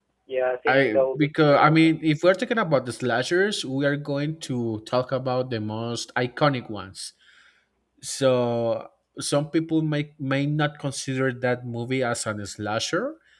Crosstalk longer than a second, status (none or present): present